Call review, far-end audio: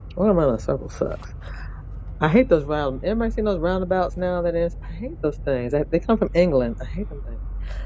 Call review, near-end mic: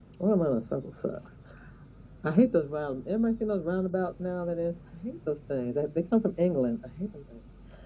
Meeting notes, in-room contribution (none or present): none